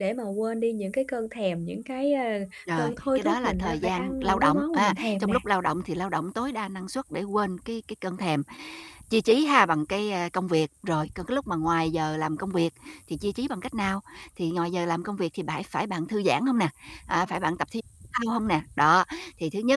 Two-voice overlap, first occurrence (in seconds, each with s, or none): 2.7 s